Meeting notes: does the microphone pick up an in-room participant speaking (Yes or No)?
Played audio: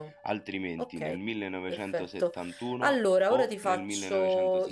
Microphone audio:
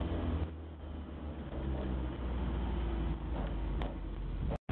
No